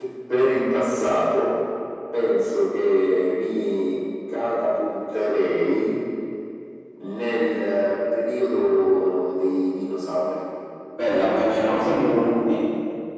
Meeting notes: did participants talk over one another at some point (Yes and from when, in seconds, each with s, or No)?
No